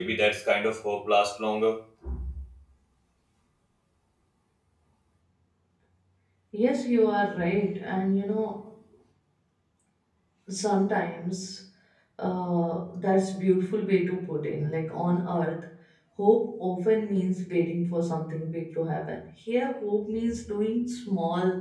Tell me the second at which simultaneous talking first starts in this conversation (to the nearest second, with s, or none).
none